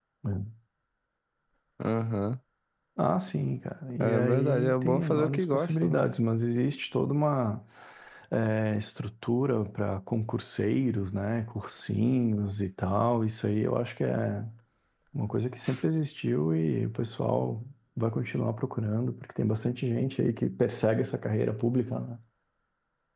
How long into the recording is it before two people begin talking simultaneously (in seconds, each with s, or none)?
4.0 s